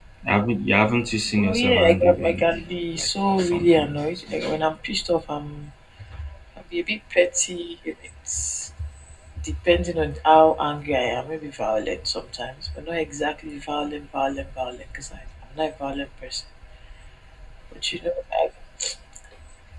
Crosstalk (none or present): present